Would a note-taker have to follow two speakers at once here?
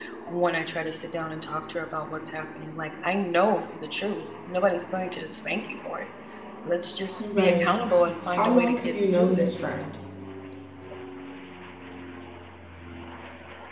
Yes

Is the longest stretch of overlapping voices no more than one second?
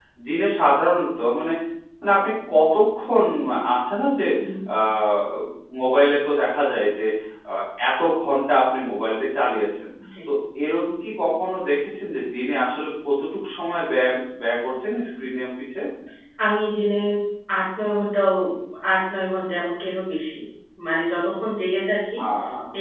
Yes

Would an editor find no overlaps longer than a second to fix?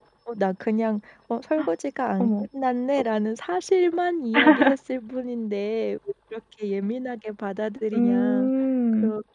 Yes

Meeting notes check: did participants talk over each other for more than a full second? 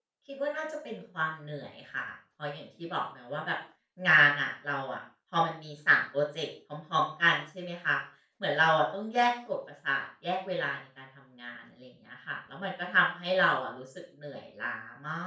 No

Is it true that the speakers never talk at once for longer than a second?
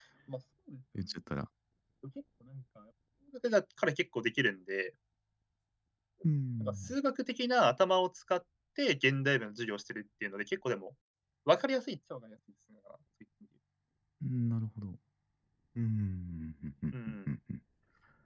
Yes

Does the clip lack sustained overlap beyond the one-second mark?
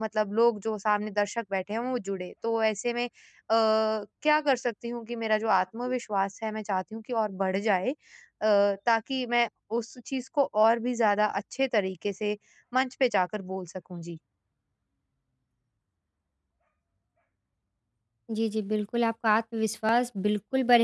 Yes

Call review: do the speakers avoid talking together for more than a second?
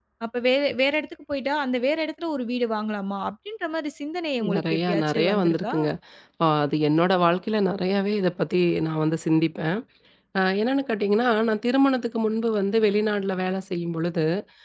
No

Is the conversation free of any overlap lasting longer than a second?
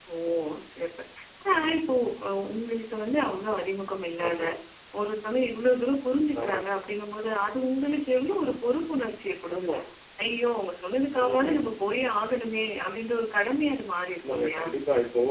Yes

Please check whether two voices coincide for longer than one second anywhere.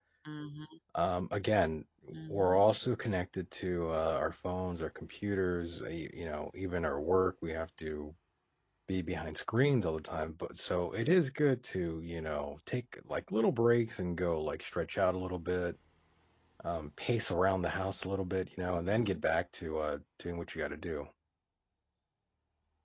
No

